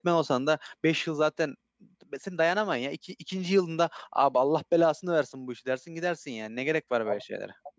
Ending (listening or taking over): taking over